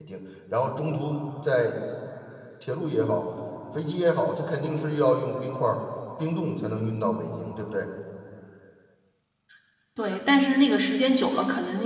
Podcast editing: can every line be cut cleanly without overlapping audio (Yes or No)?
Yes